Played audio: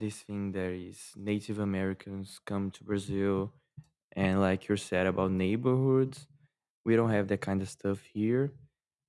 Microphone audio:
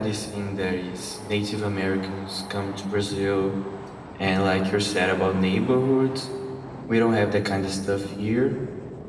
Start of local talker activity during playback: none

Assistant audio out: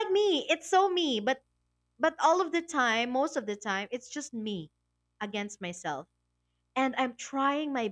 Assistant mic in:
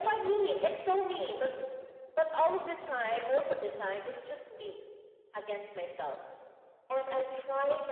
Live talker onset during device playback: none

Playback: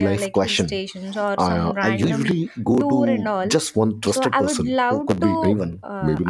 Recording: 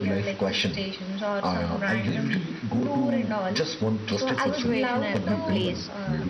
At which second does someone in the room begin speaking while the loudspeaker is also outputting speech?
4.3 s

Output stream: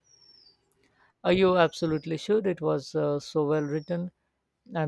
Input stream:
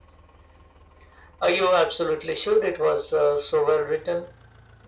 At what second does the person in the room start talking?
none

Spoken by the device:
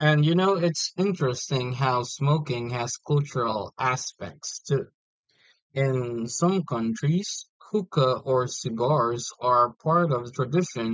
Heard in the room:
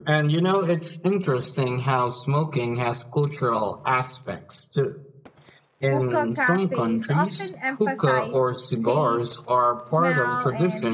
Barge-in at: 5.9 s

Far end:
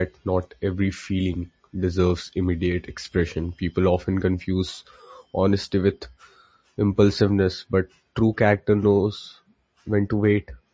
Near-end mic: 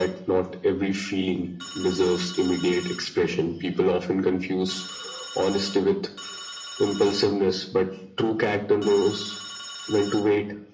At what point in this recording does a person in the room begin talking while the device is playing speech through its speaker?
none

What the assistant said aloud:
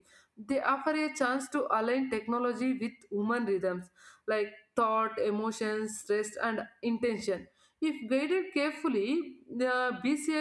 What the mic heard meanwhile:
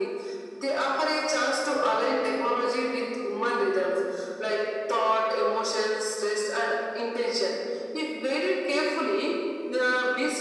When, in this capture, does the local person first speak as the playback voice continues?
none

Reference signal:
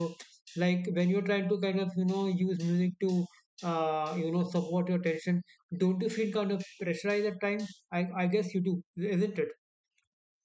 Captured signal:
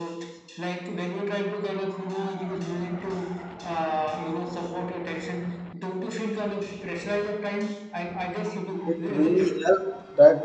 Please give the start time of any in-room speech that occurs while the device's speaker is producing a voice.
8.8 s

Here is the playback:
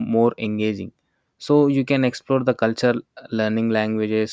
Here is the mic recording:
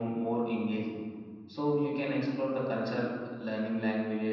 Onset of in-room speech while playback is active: none

